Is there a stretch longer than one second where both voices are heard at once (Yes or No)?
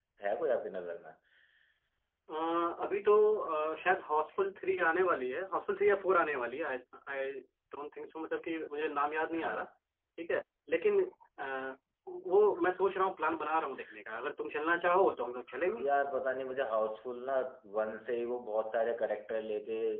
No